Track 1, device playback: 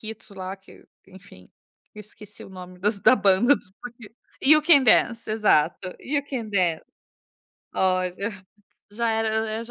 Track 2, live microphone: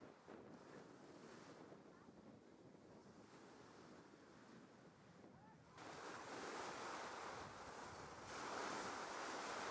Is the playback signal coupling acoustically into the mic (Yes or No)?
No